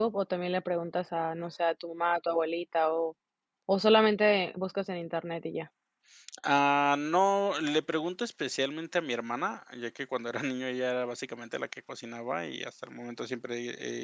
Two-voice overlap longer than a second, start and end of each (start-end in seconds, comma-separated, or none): none